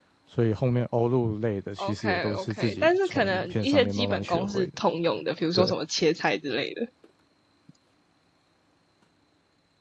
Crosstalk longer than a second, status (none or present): present